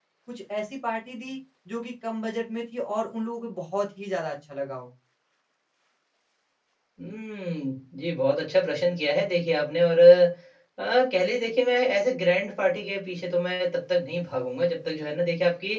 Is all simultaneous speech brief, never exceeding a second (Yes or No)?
Yes